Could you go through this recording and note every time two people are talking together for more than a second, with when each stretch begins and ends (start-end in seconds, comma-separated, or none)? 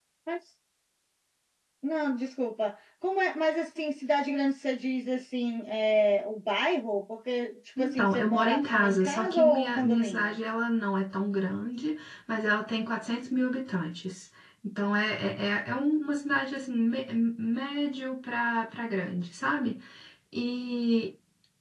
7.8-10.4